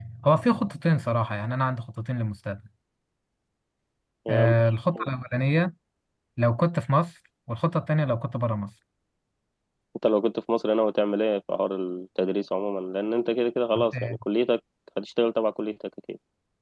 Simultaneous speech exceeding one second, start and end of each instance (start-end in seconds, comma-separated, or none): none